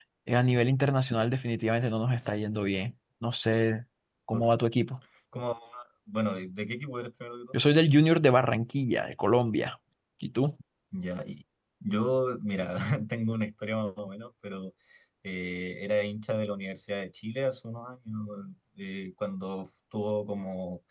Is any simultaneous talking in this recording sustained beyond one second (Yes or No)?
No